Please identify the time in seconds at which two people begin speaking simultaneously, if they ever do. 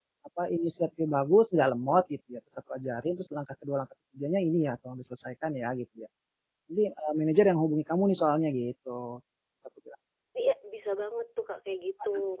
none

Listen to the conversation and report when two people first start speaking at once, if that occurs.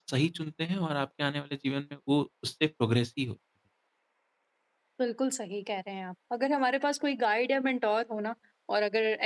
none

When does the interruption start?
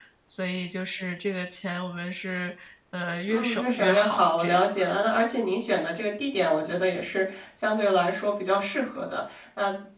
3 s

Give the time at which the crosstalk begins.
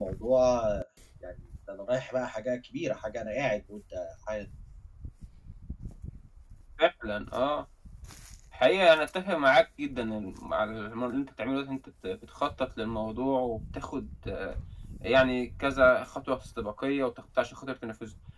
none

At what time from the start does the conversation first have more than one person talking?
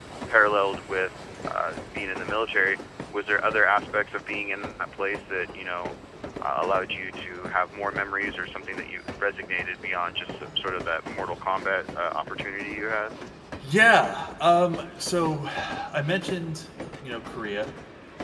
none

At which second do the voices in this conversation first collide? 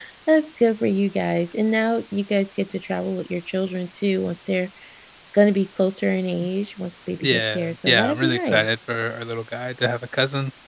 7 s

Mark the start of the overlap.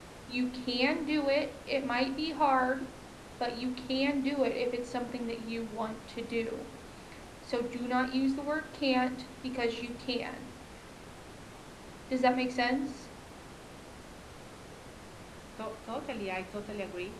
none

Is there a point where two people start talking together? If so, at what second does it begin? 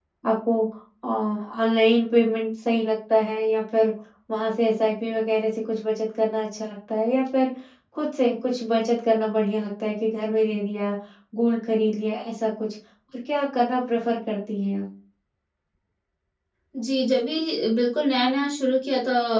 none

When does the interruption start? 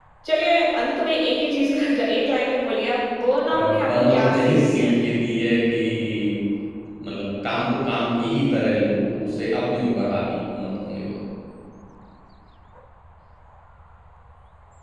4 s

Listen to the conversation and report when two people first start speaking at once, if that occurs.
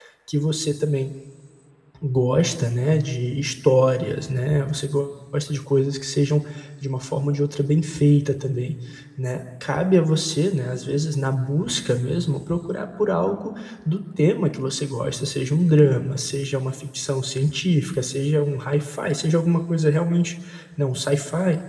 none

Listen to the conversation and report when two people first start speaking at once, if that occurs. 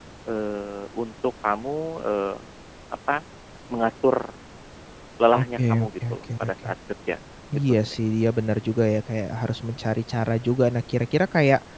5 s

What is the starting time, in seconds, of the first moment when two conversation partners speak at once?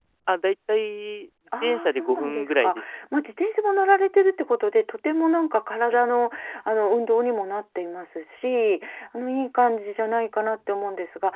2 s

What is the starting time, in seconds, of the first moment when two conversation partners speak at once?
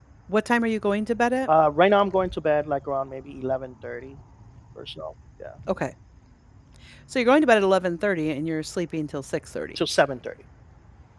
none

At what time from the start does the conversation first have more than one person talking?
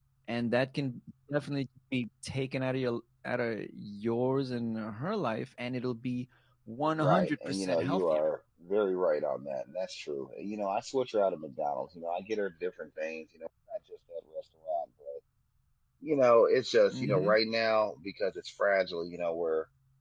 7 s

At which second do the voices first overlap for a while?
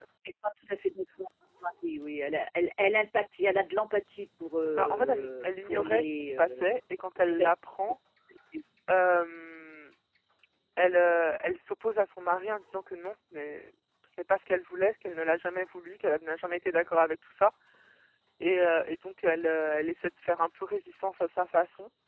5 s

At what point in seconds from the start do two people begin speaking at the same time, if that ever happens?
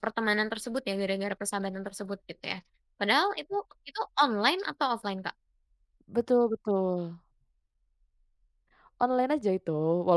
none

